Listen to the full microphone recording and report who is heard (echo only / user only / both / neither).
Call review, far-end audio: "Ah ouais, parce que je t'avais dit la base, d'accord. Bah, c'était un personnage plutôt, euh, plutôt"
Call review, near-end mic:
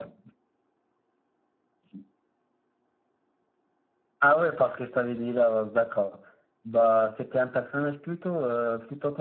echo only